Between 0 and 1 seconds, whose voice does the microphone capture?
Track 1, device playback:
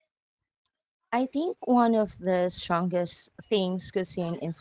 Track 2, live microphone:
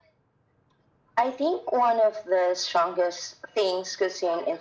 neither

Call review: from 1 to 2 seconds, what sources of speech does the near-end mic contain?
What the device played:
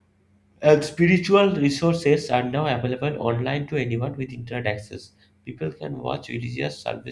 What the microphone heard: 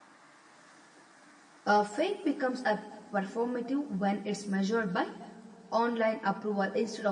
user only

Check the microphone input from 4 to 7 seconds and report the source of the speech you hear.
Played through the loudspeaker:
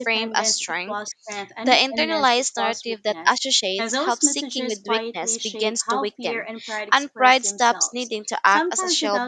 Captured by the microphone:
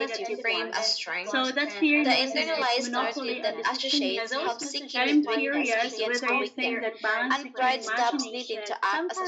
both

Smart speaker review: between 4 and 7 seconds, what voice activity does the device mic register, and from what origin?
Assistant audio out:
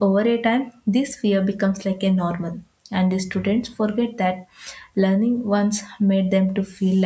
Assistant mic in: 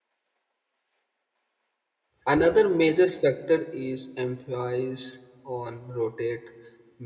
user only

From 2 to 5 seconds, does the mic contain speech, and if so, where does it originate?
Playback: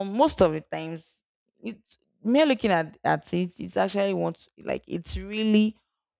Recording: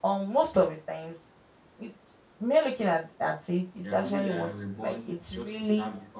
both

